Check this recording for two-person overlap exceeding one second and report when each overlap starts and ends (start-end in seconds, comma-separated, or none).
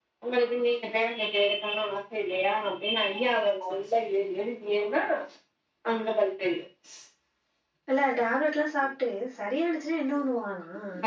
none